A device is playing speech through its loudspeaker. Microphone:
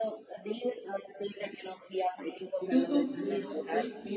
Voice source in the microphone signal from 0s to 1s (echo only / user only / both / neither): echo only